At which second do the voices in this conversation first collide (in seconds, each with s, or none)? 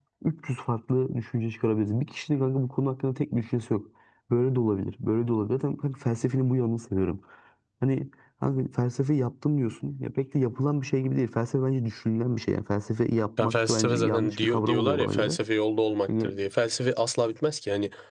13.4 s